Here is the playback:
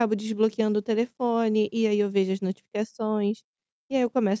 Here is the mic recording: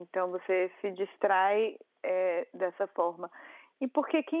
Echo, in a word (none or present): none